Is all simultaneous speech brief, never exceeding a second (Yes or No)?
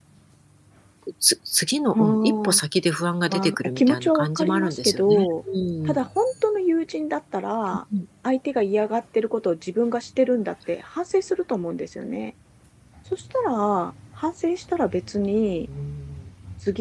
No